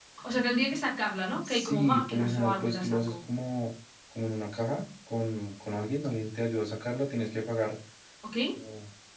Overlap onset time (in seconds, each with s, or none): 1.4 s